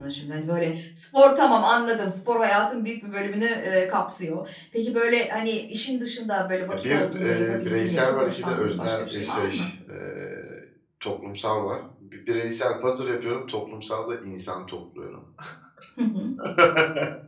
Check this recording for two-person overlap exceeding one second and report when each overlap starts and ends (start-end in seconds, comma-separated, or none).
6.8-9.5